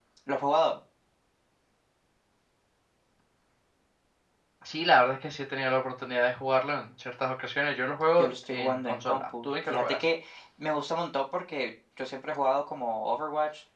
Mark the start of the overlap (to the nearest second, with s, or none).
8 s